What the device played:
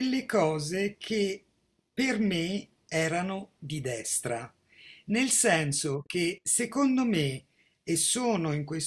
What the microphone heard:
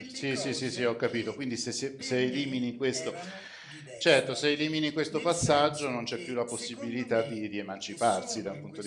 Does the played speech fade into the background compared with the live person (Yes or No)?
Yes